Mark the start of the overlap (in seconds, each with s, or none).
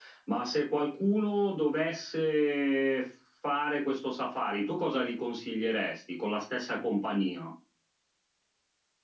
none